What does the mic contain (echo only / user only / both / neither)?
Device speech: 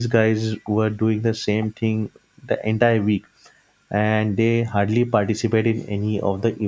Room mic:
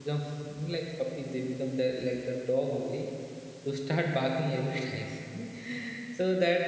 user only